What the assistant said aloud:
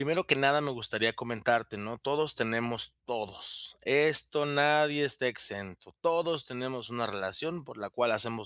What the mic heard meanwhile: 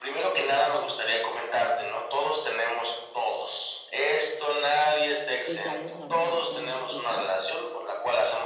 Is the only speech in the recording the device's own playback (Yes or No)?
No